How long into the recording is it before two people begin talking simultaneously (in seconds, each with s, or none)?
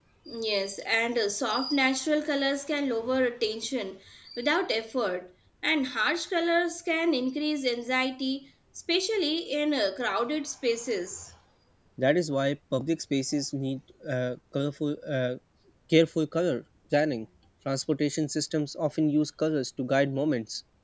none